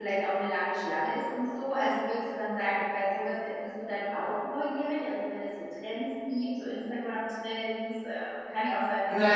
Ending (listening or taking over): taking over